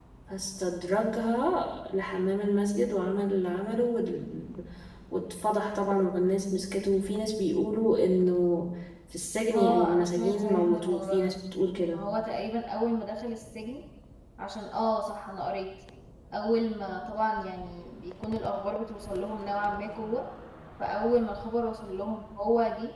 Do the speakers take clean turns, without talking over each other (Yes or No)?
No